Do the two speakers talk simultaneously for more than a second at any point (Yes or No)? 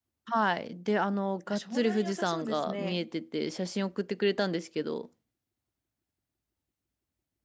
Yes